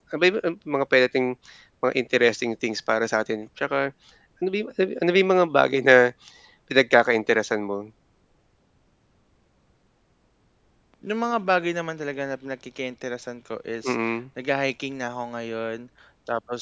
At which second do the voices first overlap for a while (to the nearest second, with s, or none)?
none